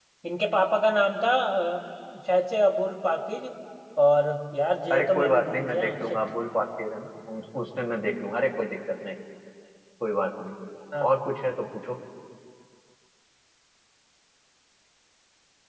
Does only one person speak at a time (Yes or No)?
No